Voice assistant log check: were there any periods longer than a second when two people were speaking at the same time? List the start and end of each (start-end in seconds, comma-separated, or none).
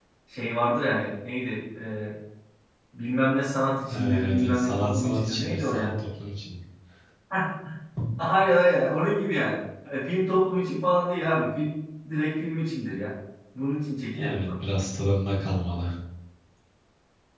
3.9-5.9